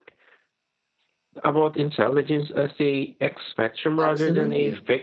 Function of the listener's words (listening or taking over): taking over